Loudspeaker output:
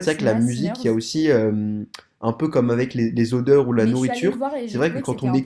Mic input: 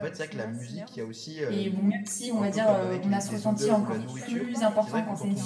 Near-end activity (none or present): present